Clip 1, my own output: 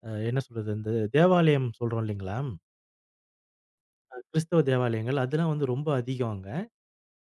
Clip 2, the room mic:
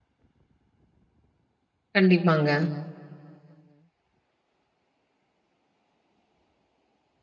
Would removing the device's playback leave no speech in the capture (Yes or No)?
No